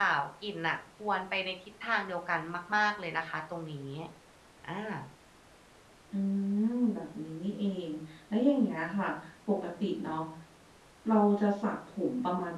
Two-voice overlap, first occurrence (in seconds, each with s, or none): none